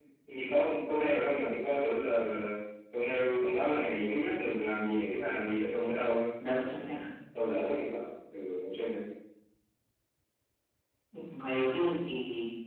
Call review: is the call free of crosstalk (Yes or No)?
Yes